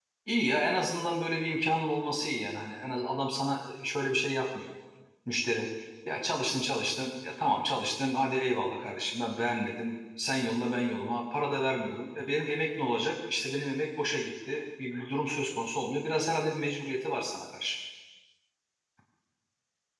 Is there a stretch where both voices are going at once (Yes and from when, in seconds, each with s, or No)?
No